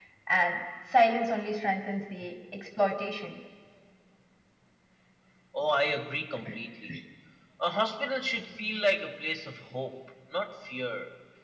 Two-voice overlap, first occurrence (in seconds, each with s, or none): none